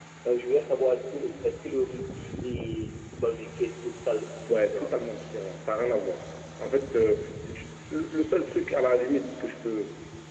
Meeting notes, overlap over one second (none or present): none